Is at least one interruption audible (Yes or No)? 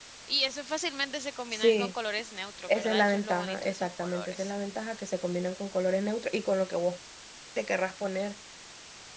Yes